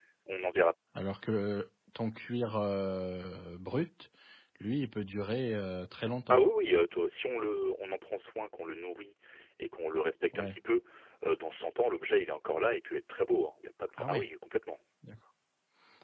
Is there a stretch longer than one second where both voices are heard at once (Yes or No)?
No